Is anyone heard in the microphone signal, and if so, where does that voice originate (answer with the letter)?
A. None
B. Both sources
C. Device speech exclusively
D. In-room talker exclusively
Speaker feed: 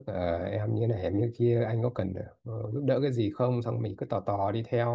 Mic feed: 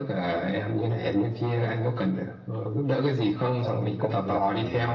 B